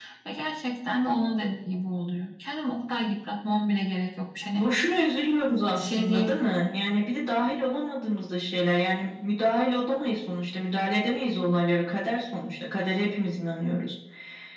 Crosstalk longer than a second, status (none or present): none